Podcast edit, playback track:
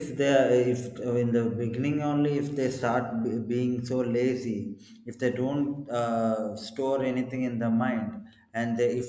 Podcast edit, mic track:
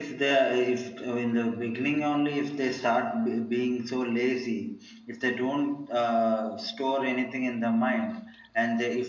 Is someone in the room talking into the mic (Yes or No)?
No